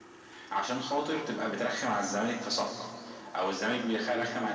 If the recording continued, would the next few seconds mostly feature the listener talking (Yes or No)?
No